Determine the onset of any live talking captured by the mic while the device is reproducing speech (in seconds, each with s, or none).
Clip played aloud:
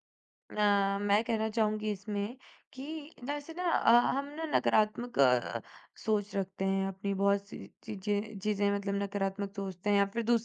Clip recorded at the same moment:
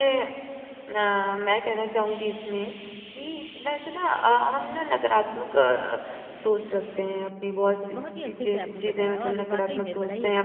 7.3 s